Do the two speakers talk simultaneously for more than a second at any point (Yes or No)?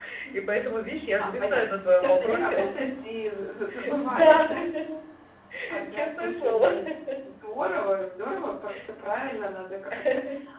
Yes